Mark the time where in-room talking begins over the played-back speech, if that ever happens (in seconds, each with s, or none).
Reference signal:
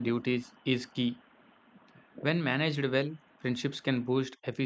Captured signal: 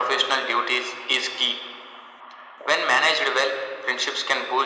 none